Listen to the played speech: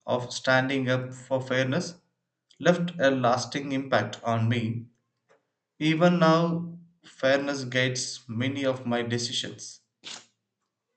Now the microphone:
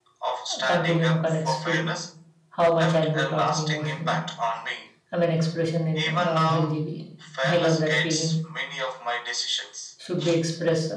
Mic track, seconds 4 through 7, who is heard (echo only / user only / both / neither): both